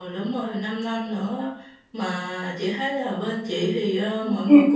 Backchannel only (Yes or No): Yes